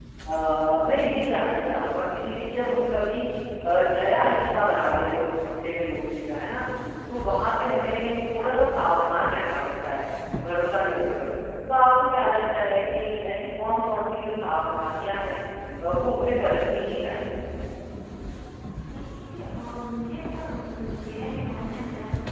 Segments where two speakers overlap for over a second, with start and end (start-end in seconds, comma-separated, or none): none